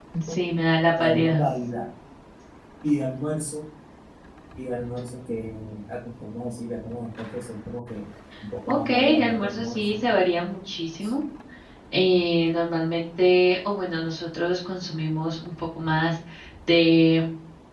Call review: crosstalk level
present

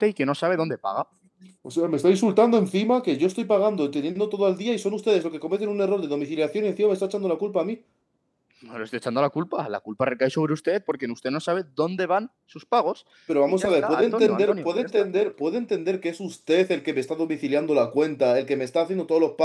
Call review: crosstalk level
present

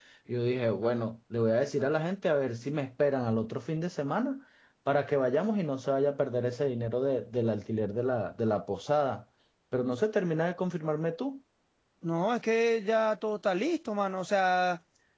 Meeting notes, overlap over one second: none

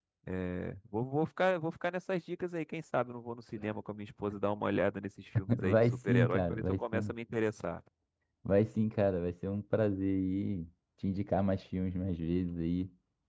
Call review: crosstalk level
present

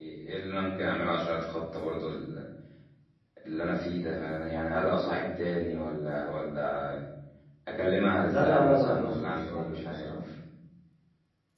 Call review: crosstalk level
present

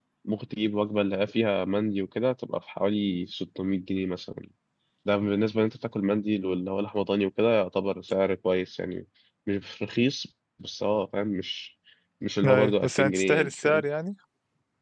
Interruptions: present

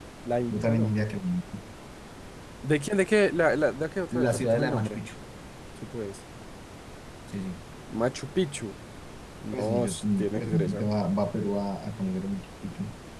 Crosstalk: present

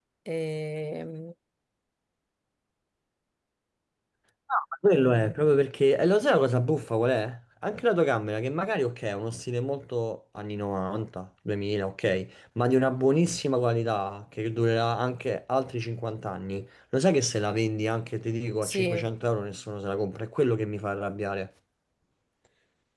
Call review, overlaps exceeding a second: none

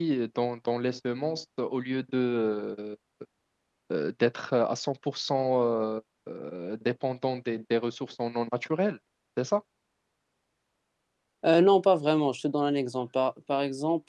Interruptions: none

